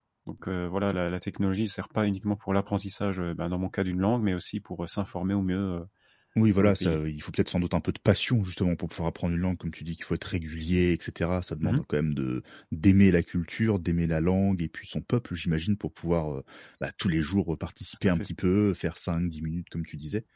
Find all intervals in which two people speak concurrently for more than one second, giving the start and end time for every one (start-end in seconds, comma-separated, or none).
none